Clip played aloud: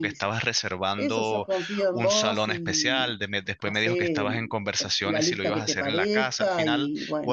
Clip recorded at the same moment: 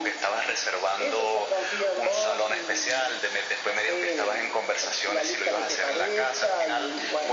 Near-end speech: none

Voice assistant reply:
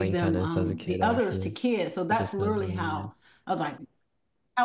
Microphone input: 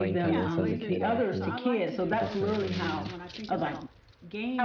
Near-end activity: present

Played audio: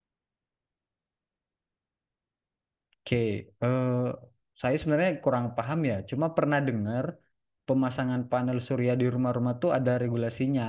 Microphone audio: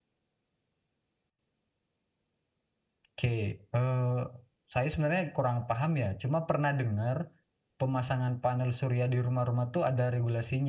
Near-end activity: none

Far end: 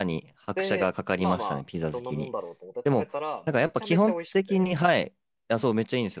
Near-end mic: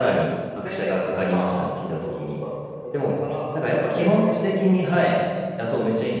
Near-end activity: none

